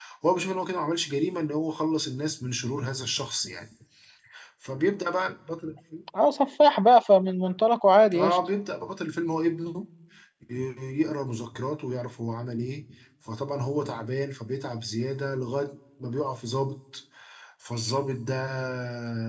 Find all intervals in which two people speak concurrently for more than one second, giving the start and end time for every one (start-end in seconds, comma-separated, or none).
none